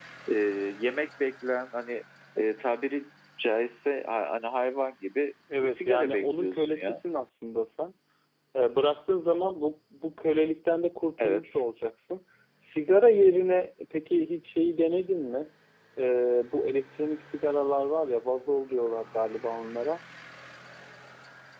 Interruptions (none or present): present